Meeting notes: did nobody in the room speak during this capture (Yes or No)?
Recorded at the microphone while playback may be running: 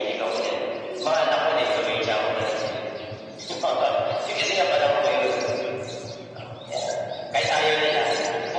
Yes